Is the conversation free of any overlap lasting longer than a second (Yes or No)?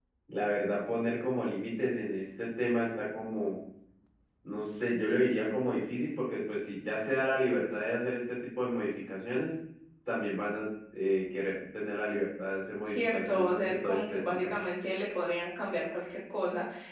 No